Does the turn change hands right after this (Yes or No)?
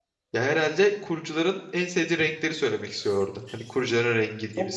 Yes